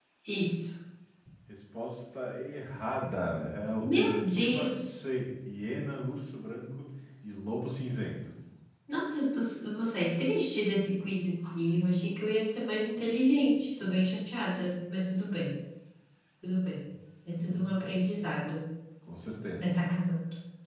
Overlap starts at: 4 s

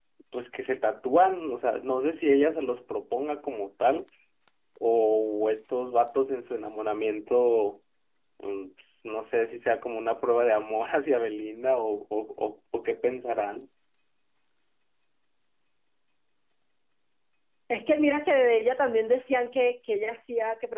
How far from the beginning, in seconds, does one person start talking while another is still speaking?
none

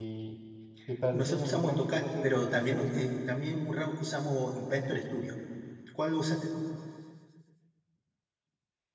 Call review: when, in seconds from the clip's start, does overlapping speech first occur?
1 s

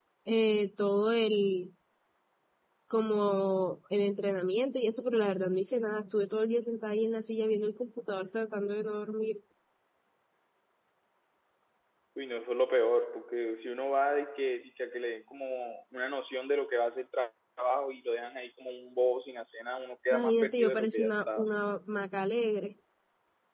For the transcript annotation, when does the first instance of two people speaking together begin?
20 s

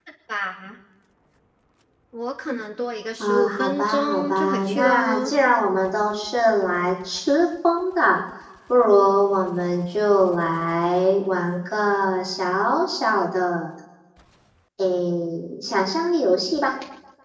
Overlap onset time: 3 s

